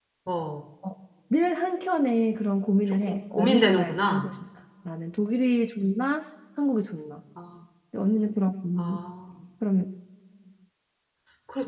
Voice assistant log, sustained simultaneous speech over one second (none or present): present